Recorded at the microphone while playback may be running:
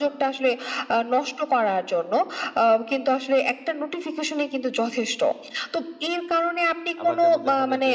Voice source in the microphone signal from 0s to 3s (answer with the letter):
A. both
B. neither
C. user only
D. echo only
D